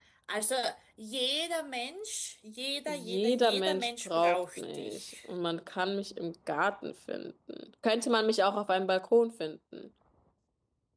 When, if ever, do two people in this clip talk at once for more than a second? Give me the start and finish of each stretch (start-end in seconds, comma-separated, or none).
2.9-5.1